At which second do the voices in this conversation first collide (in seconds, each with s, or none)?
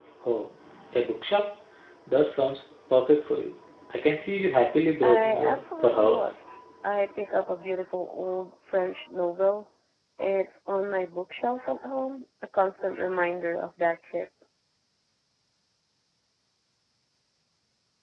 5.0 s